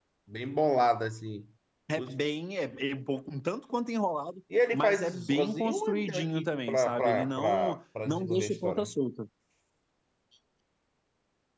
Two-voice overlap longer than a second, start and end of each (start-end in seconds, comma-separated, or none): 4.7-8.9